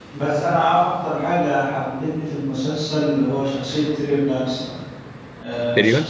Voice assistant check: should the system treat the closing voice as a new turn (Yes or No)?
No